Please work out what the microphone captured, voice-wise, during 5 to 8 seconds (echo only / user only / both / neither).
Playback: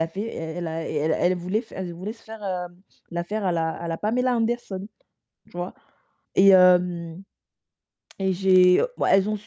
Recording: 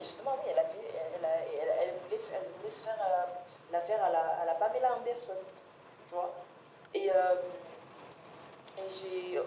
echo only